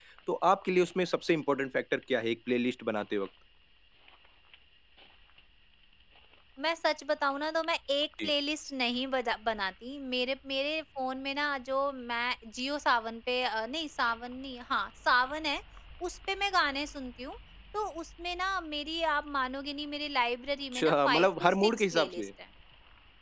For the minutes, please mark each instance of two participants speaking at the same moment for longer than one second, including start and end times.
20.7-22.3

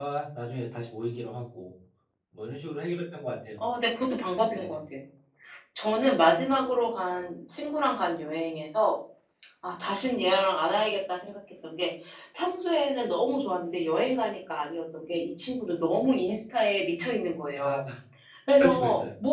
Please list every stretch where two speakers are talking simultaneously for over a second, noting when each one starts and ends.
none

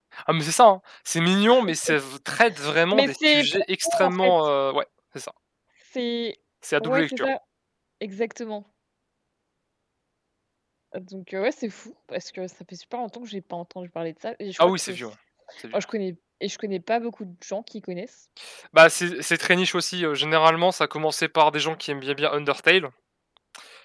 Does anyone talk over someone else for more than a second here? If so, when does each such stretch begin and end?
2.9-4.3

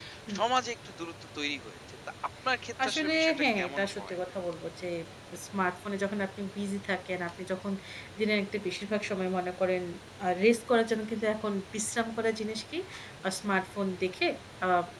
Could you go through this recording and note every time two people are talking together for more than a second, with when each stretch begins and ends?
2.8-4.2

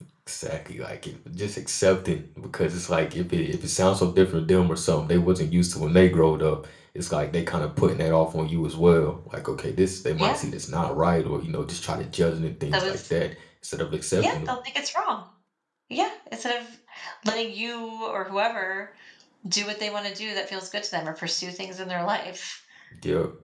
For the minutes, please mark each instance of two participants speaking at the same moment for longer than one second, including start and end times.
none

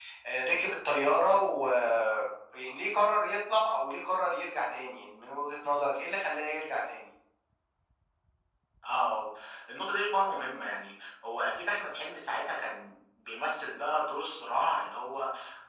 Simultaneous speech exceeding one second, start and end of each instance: none

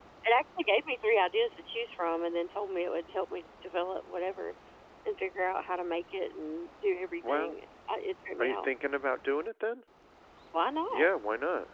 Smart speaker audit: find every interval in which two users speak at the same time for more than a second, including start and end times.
none

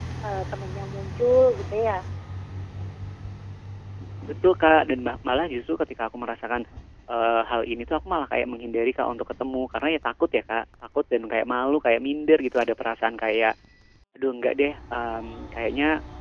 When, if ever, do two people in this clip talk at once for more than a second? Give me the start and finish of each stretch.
none

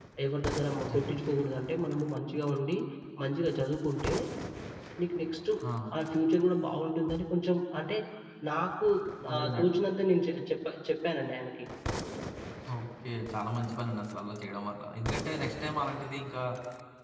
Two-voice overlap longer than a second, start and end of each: none

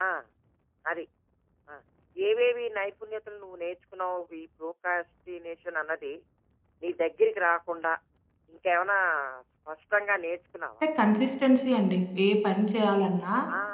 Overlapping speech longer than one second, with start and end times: none

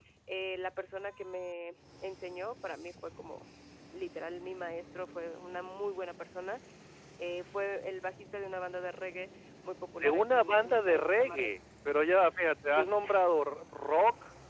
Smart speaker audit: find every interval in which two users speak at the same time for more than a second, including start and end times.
10.0-11.5

